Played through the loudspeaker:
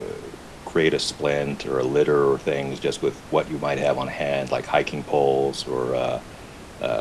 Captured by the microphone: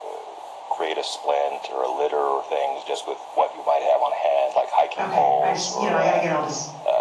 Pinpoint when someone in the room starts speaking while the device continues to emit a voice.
5.0 s

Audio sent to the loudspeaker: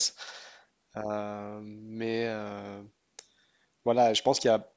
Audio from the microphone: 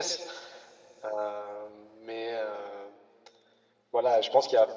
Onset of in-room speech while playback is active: none

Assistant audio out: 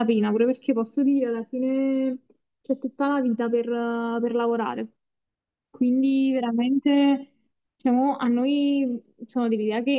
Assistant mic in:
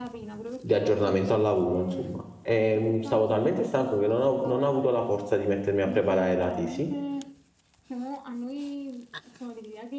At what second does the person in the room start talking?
0.6 s

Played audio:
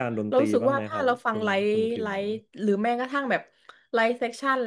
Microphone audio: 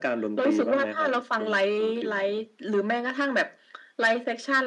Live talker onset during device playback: none

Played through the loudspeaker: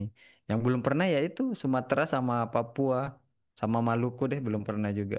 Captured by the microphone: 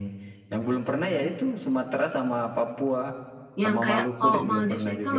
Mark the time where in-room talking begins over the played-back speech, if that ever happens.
3.6 s

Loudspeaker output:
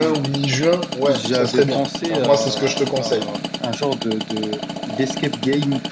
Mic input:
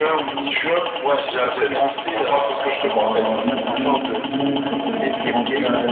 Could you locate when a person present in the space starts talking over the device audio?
2.8 s

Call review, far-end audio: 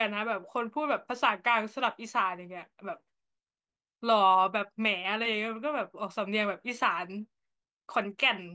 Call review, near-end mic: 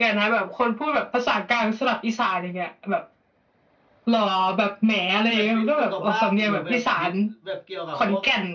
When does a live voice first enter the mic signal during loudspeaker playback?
5.3 s

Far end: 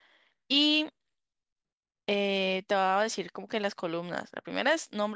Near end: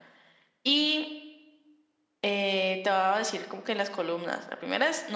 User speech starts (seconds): none

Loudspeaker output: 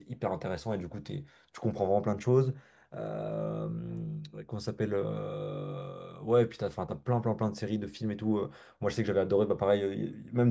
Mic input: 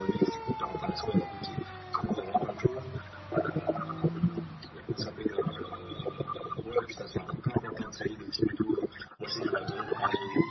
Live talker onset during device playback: none

